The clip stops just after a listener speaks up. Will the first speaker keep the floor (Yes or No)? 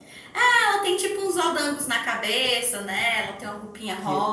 No